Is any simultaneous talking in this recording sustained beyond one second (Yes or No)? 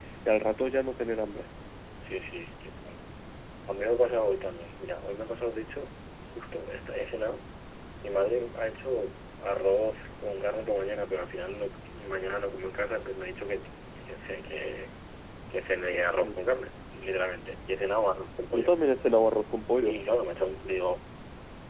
No